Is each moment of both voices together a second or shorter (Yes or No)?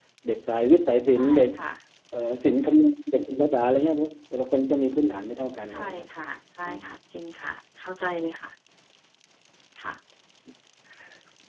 Yes